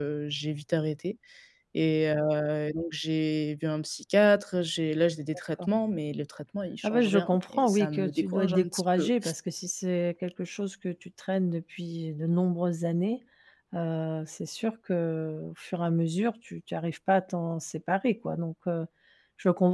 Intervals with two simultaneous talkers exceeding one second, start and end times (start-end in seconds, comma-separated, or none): 6.8-9.1